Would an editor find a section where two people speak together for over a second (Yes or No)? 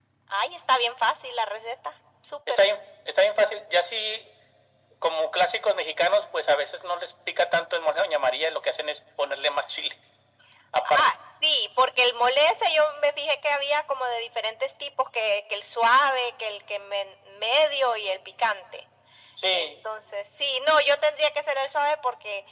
No